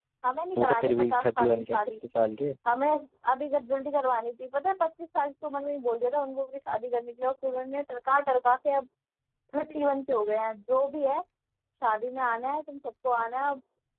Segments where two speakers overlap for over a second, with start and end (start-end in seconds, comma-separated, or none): 0.6-1.8